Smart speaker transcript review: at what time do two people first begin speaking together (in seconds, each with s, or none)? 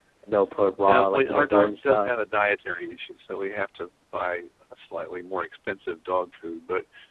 0.9 s